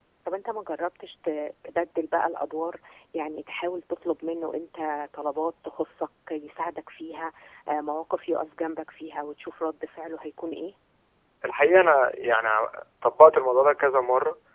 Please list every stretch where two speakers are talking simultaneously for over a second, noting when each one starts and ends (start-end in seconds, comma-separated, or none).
none